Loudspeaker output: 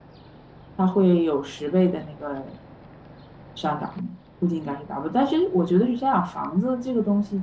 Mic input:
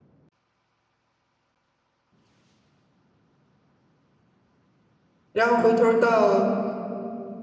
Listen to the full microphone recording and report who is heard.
user only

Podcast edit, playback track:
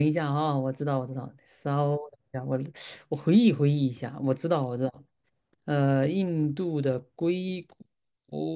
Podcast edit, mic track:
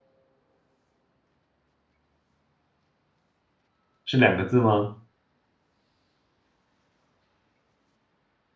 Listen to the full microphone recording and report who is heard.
user only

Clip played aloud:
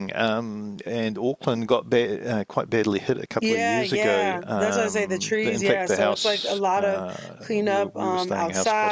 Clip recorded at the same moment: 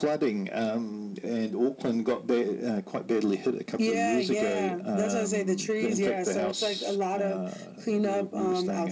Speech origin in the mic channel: echo only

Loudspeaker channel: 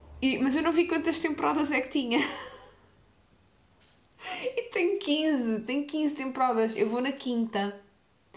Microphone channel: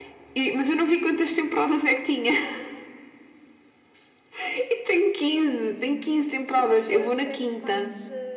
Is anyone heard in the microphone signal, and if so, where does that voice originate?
both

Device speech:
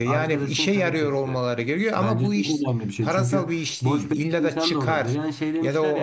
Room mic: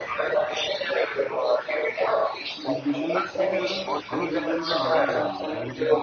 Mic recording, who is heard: both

